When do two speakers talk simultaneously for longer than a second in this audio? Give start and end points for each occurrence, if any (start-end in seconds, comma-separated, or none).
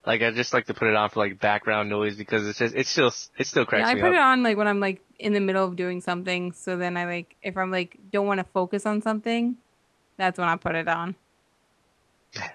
none